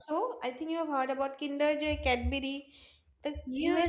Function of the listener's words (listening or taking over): taking over